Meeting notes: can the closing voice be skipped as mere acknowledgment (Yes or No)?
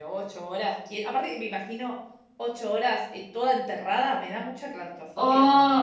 No